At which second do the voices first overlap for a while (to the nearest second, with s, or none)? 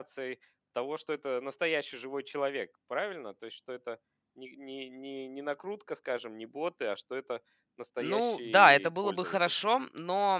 8 s